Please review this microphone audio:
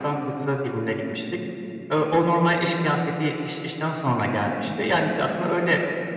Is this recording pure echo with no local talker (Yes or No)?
Yes